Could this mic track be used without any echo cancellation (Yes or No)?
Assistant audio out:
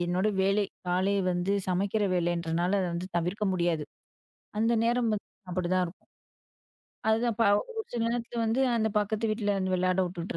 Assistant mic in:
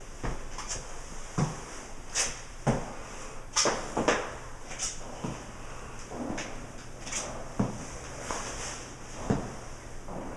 Yes